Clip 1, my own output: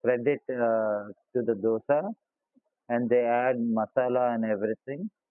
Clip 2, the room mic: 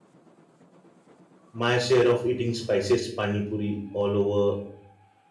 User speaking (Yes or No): Yes